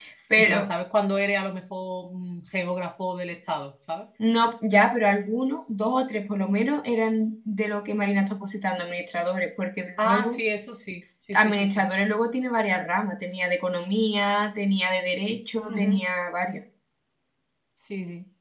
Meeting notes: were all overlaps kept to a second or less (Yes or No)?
Yes